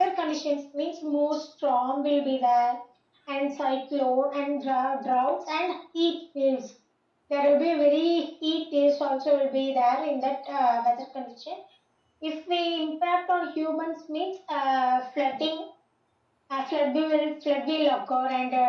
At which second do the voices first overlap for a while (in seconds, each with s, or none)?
none